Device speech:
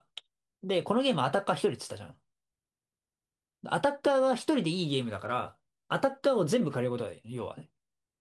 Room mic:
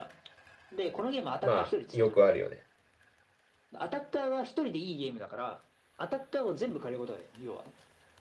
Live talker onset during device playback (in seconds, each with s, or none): 1.4 s